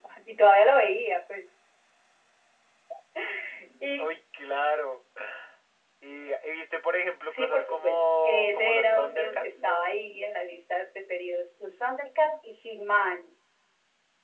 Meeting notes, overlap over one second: present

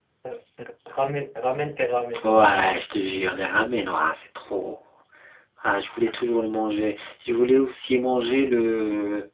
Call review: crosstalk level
none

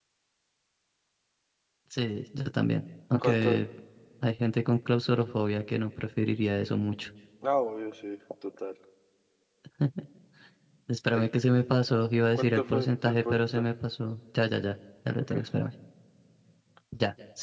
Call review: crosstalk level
present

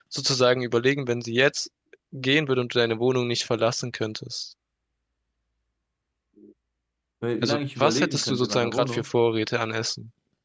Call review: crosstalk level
present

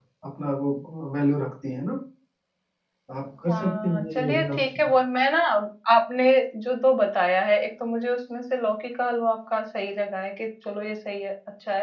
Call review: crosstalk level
present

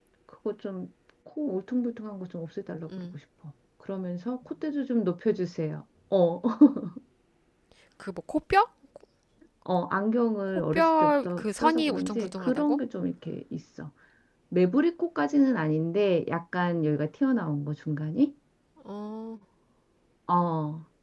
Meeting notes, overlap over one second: present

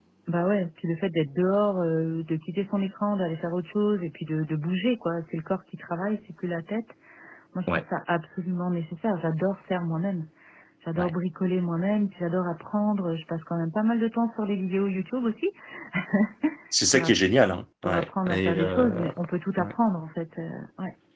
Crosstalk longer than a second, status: present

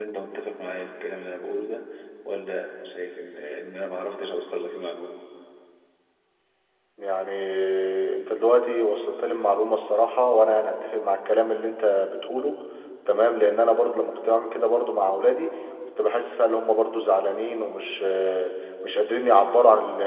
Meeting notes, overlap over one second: none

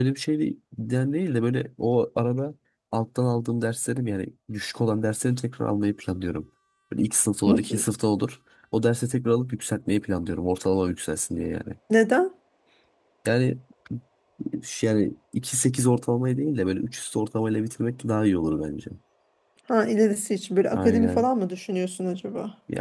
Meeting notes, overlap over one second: none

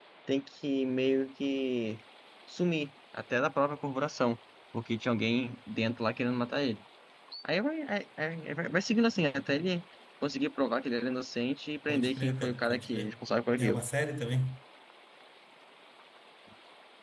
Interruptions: present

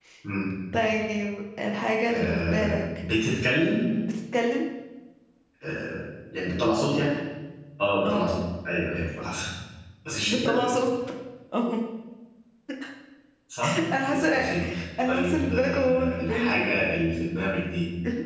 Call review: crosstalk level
present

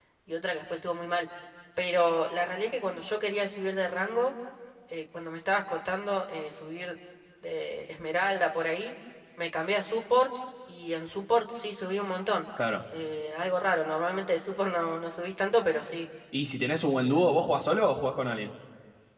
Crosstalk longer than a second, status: none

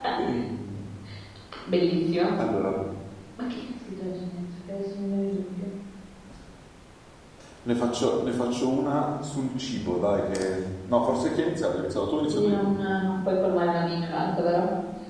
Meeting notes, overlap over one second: none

